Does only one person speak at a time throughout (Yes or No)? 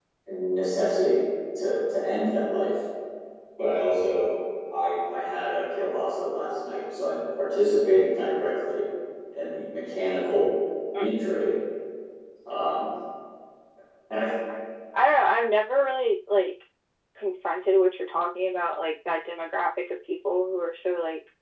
Yes